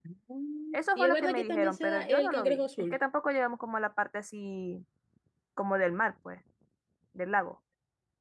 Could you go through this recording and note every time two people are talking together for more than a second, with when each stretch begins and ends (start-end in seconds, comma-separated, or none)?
0.7-3.0